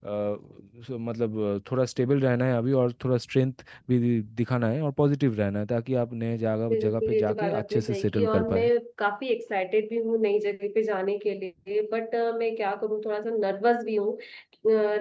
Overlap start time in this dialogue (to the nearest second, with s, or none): 7 s